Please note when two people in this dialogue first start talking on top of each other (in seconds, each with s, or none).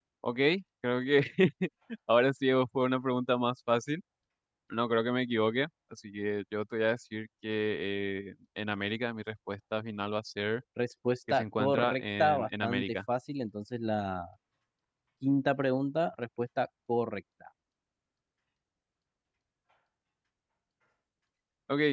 11.3 s